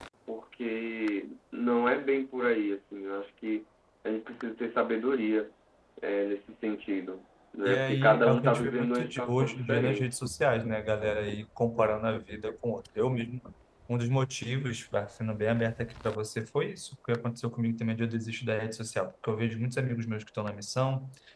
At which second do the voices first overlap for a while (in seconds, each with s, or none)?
7.7 s